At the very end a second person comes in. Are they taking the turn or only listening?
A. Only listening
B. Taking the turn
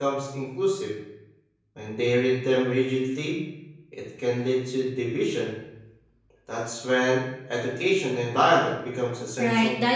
B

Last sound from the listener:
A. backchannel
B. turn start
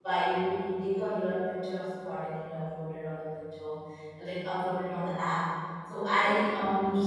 A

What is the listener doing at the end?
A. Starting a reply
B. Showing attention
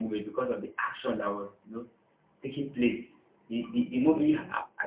B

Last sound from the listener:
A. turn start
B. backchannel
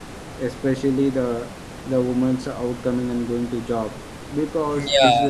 A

